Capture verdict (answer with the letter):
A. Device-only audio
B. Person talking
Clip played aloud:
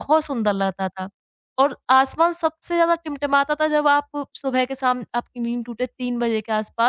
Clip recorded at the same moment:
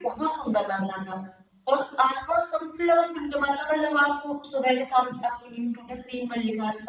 A